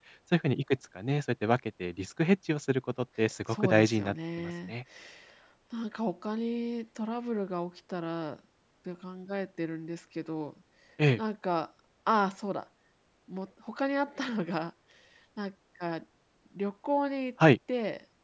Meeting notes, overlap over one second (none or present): present